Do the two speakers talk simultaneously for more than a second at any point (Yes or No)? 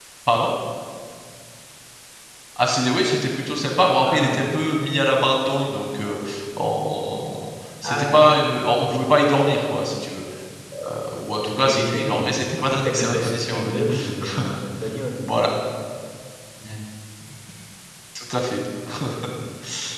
Yes